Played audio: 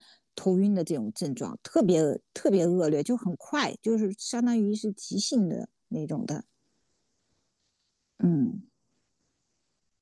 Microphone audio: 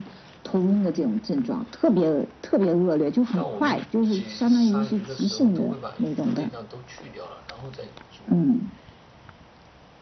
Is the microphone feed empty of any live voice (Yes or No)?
No